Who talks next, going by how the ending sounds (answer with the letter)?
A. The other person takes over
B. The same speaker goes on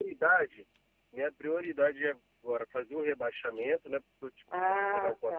A